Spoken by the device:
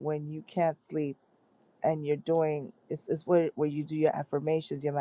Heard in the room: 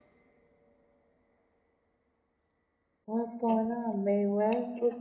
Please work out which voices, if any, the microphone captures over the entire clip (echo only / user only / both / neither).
user only